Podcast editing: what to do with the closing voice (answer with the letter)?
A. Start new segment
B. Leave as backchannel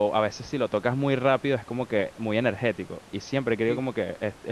B